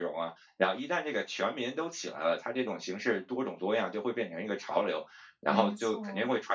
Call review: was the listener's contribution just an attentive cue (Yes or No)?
Yes